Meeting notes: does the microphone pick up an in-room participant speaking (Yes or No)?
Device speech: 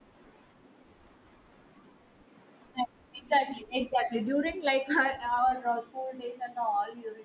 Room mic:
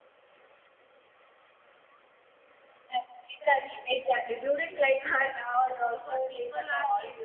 Yes